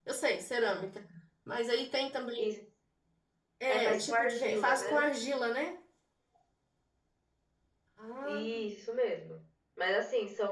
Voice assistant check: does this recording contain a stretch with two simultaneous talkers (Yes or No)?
Yes